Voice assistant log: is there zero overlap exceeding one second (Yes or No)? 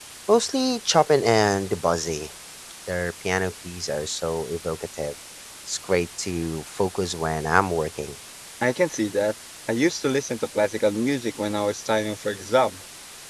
Yes